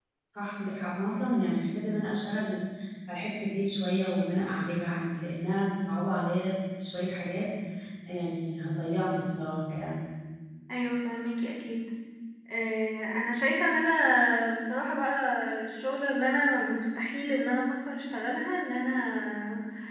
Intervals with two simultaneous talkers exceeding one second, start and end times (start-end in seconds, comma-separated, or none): none